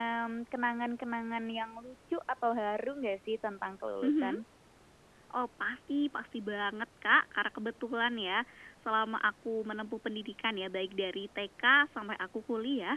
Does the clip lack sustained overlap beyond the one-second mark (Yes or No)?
Yes